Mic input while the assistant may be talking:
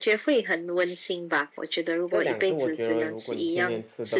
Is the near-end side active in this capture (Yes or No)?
Yes